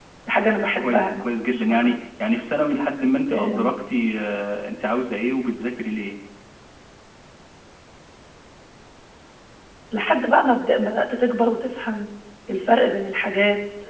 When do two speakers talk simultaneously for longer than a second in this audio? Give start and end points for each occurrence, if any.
0.6-2.0

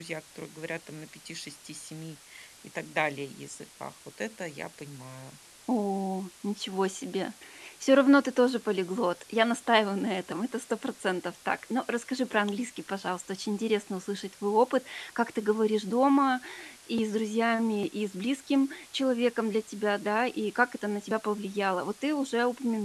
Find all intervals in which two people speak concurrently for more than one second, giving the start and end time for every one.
none

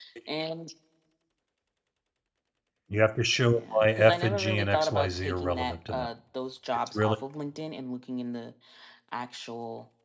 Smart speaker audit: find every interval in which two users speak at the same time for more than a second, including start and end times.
3.5-6.1

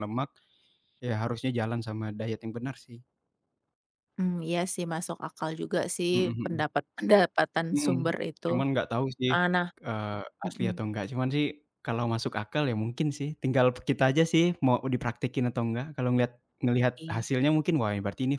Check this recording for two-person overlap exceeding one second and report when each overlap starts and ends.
none

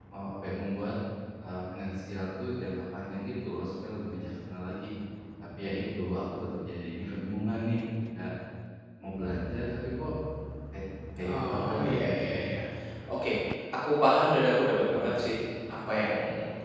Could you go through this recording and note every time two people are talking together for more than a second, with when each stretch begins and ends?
11.2-12.4

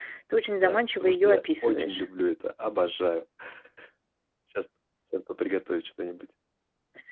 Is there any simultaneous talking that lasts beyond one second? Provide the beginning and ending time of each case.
0.6-2.0

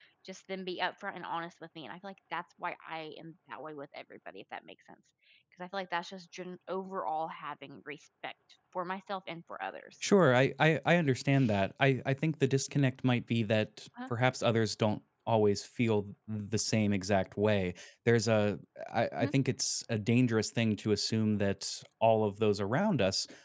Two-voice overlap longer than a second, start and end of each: none

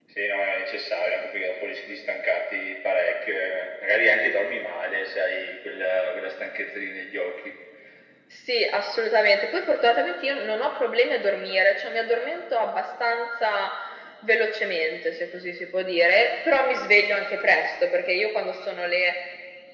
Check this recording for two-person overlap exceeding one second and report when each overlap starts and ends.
none

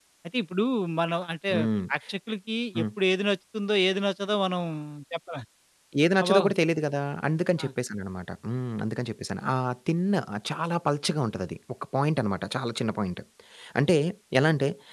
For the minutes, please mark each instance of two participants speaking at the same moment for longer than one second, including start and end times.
none

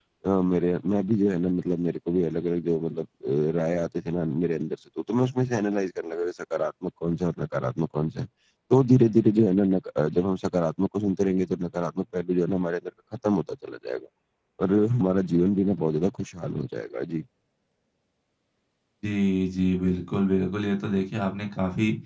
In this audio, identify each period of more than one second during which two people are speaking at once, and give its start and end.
none

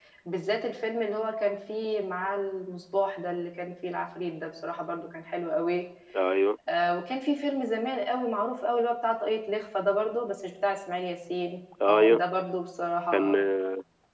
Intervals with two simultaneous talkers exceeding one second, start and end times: none

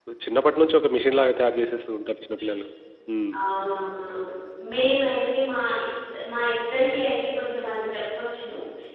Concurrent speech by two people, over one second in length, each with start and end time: none

